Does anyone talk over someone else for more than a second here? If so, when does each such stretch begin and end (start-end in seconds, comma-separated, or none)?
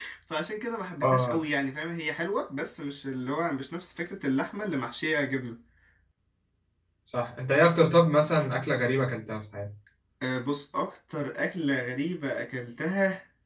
none